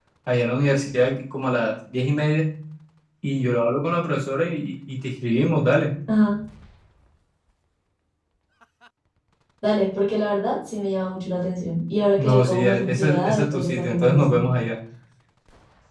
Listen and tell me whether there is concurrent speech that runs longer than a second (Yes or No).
Yes